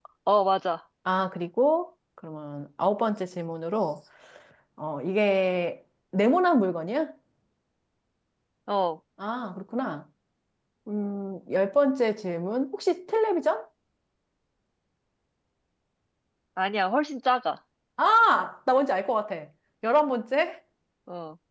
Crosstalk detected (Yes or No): No